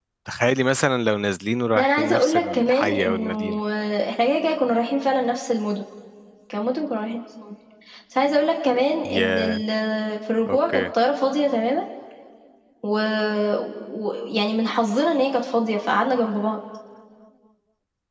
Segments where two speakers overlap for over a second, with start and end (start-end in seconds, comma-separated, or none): 1.8-3.3